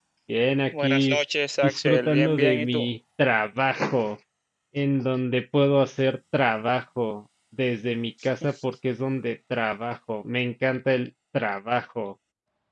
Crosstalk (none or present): present